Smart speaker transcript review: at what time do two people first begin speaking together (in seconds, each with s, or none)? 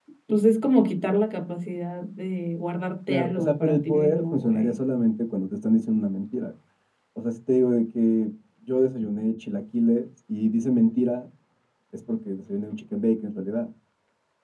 3.1 s